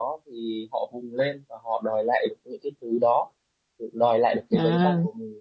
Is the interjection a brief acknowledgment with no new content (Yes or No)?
Yes